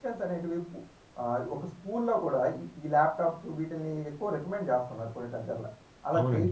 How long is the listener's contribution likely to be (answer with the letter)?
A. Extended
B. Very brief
A